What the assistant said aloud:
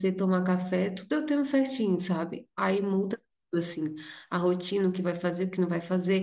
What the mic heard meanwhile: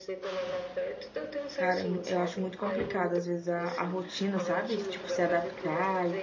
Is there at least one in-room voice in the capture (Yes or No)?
Yes